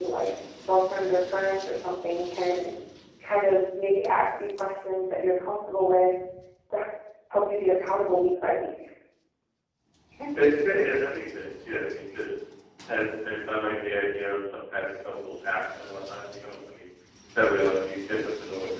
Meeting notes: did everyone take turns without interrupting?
Yes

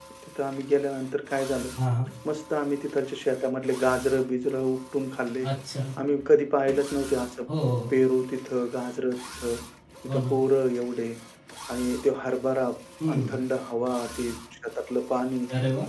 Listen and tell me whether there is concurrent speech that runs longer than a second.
No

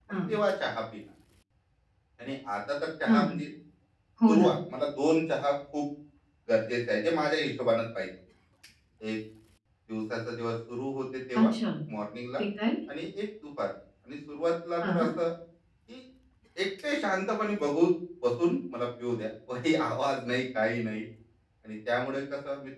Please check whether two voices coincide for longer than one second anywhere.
No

